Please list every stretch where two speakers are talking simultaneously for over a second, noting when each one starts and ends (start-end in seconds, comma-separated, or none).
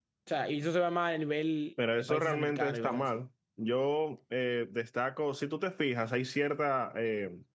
2.0-3.2